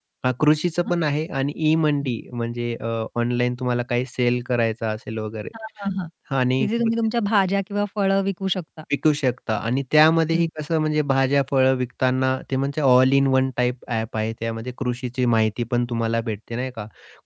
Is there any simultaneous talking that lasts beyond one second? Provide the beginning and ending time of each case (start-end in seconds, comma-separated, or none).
none